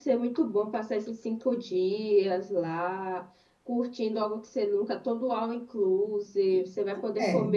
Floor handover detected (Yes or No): No